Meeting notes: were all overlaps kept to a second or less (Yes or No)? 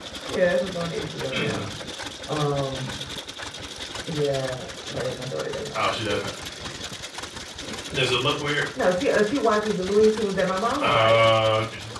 Yes